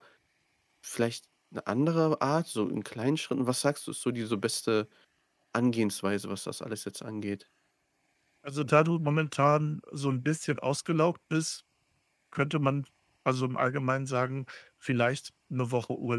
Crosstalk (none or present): none